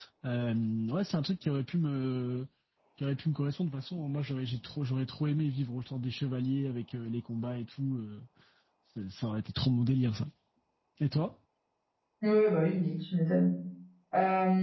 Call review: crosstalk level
none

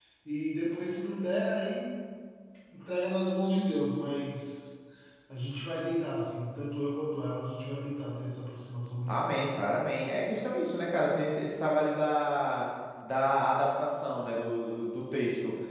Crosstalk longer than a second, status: none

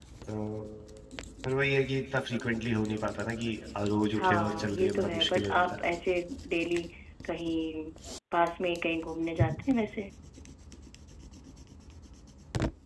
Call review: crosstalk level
present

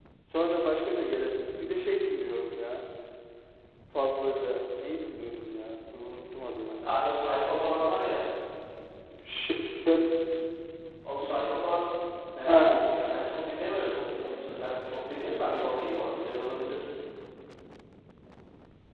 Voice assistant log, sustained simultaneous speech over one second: none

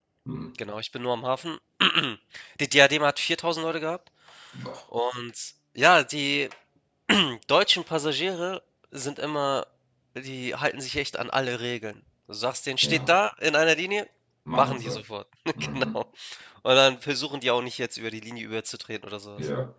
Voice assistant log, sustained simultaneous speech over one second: none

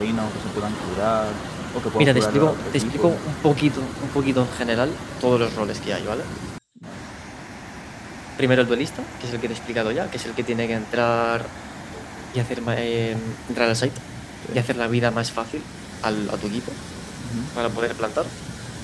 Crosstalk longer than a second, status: present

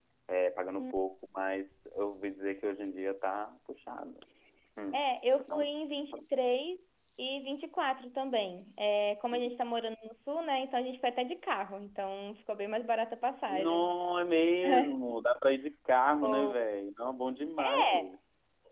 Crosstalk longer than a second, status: none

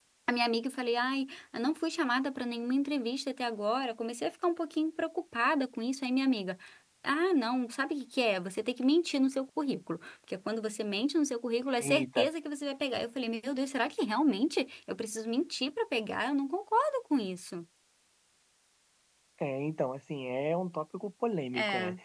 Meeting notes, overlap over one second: none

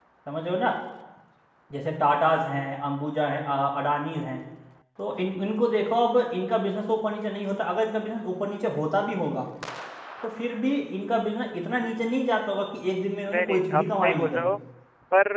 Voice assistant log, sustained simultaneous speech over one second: present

